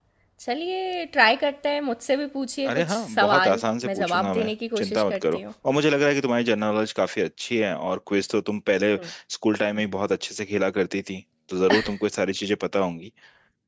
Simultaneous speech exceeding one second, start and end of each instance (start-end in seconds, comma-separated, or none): 2.6-5.4